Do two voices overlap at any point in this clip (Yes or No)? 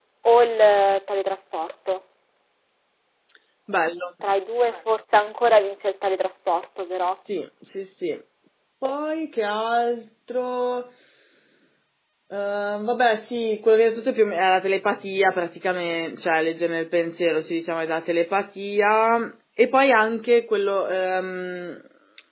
No